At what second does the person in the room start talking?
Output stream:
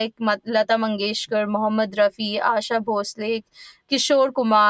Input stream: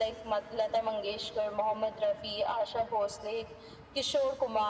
none

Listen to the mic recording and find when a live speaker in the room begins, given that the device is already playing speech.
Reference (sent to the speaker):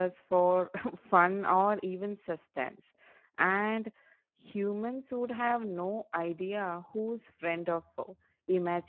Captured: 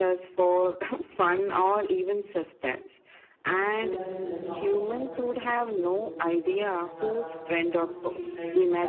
3.7 s

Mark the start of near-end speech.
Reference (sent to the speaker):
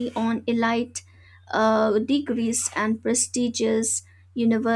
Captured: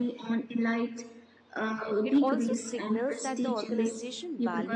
2.0 s

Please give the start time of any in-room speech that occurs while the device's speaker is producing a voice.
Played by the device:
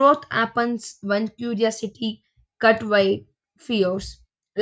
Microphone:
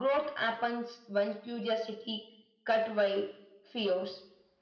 none

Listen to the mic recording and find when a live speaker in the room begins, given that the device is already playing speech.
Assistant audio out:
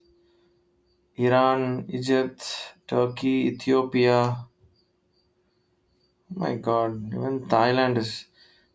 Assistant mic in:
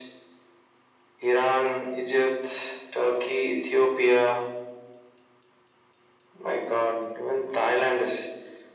none

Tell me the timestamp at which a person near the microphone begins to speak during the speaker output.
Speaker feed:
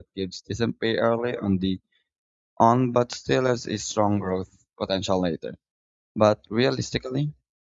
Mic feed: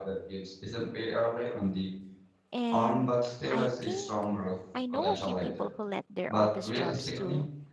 2.5 s

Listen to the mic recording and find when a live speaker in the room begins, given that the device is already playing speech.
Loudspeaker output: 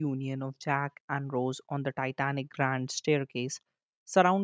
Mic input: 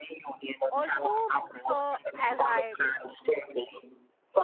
0.7 s

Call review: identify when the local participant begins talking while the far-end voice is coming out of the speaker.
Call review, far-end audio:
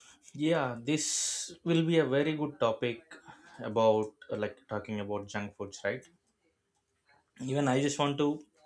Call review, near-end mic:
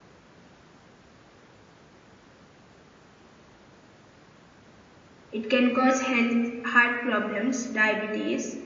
5.3 s

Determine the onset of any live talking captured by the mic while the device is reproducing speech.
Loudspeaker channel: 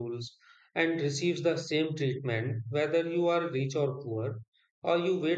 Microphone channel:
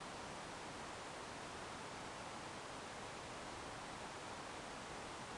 none

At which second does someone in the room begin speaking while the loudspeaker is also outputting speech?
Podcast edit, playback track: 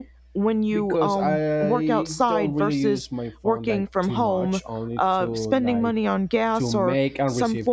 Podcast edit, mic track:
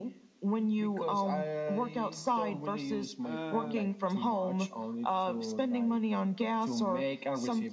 3.2 s

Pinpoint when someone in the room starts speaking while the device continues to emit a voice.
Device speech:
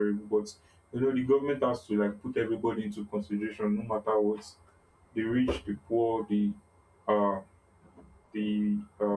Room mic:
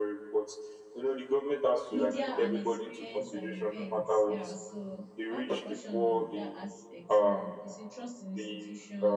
1.9 s

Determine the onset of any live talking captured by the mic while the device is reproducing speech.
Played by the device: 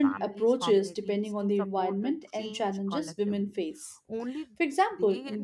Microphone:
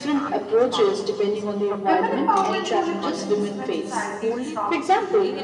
1.9 s

